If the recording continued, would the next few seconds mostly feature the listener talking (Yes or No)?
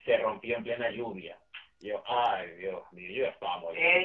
Yes